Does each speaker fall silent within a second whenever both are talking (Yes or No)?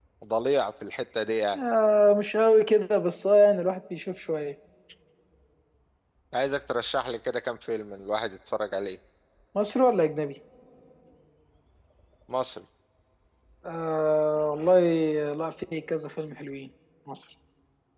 Yes